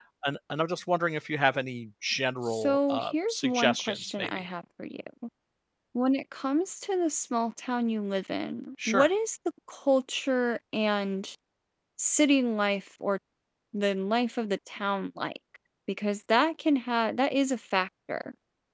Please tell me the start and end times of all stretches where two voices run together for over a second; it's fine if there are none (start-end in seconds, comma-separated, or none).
2.5-4.5